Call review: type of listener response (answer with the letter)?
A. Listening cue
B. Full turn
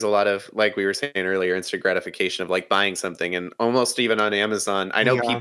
A